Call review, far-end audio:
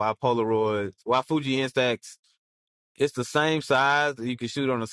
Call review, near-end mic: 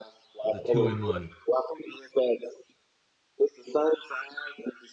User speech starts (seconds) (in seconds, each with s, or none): 0.4 s